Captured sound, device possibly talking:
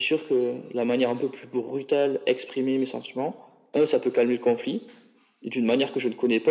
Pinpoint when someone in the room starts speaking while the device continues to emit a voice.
none

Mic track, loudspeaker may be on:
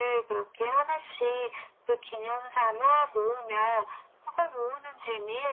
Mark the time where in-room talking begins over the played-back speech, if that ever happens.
none

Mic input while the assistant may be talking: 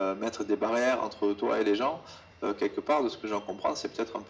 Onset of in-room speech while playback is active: none

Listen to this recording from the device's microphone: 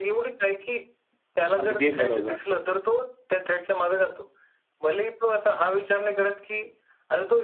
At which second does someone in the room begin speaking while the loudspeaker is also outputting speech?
1.6 s

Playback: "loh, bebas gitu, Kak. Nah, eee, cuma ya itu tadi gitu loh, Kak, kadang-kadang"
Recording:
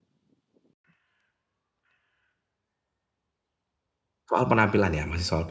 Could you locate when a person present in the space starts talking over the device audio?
4.3 s

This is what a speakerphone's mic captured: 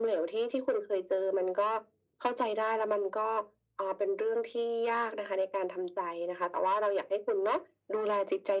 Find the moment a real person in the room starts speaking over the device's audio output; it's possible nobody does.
none

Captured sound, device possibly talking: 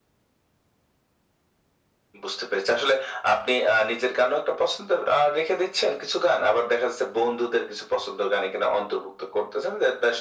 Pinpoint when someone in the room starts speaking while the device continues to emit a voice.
none

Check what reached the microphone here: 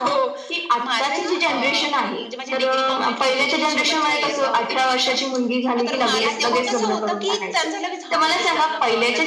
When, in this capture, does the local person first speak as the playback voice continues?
none

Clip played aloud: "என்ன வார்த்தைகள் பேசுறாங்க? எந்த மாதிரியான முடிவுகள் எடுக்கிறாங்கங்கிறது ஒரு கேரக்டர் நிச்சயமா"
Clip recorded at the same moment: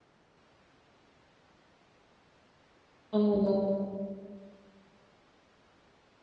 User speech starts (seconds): 3.2 s

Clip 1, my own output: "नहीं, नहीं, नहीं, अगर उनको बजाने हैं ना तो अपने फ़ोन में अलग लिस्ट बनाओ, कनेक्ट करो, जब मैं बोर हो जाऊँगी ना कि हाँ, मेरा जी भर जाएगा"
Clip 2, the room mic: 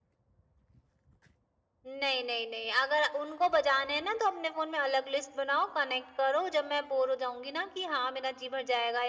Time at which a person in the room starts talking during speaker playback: none

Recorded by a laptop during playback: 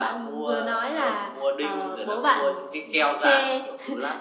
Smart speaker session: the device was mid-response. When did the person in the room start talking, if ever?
none

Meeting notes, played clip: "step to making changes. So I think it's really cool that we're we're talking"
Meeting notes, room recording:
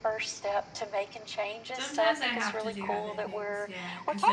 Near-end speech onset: 1.8 s

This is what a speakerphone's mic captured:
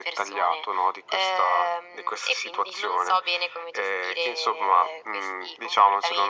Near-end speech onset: none

